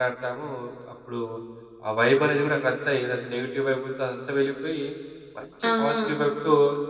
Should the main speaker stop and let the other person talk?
No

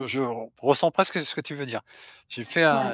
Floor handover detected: No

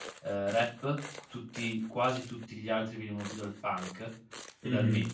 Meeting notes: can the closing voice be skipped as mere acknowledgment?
No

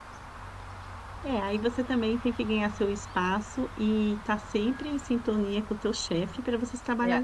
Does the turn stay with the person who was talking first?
Yes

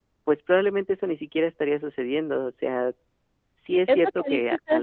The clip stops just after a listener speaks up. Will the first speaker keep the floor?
No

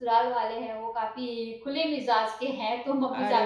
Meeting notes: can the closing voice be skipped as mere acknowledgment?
Yes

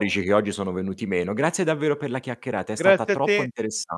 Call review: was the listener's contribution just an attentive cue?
No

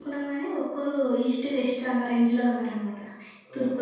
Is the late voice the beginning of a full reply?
Yes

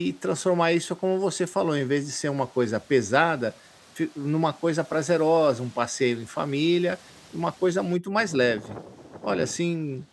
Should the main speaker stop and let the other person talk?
No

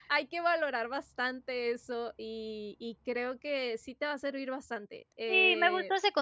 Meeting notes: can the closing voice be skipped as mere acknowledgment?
No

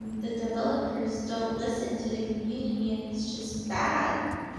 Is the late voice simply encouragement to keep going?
No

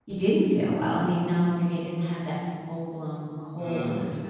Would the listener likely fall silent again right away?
Yes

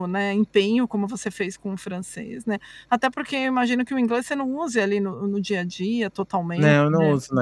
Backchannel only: No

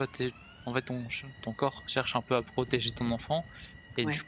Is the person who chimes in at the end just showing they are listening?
Yes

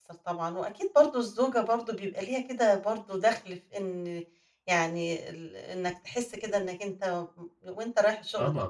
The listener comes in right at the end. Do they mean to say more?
Yes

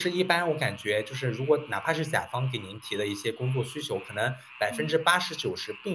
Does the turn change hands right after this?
No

